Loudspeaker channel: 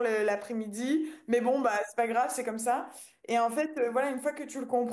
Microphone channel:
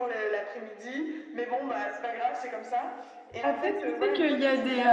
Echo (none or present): present